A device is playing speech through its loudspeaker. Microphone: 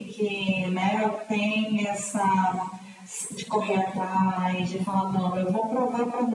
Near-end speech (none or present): none